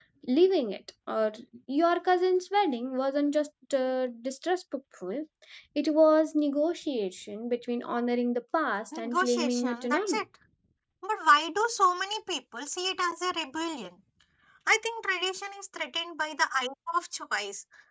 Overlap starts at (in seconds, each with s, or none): 8.9 s